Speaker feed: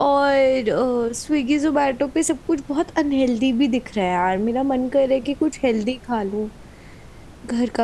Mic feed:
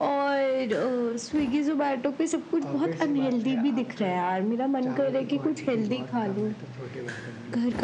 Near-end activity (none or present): present